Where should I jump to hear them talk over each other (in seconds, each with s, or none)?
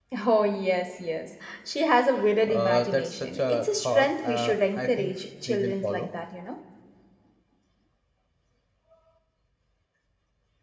2.5 s